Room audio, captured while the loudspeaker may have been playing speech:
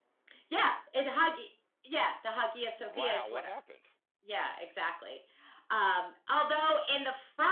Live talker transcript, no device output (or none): Wow, what happened?